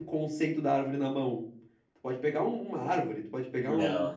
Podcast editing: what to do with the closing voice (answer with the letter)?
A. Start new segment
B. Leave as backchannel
B